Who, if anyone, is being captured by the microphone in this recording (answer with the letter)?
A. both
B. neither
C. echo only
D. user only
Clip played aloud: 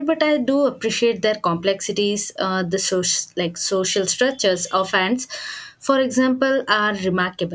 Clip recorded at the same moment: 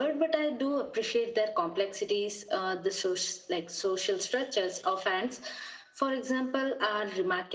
C